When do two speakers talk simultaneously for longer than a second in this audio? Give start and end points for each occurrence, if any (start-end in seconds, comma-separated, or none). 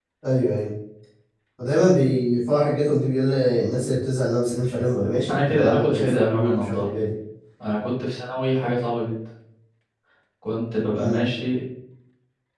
5.3-6.9